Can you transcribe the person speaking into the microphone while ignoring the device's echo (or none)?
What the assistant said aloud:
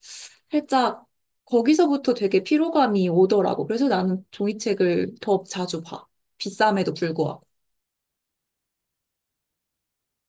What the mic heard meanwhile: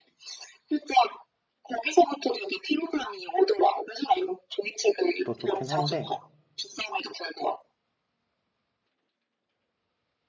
더 좋긴 한데